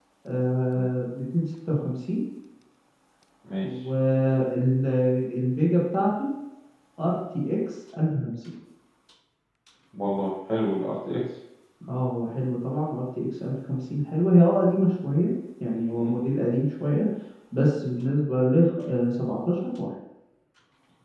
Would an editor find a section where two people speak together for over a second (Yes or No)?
No